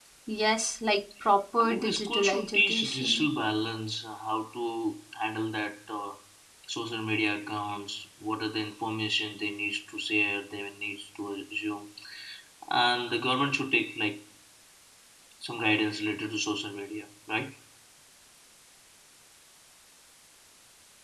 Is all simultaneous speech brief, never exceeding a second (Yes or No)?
No